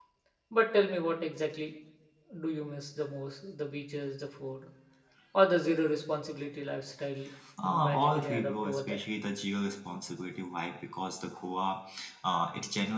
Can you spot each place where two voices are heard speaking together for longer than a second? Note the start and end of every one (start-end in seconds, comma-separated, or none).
7.6-9.0